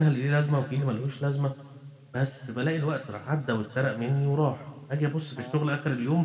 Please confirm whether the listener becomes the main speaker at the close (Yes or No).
No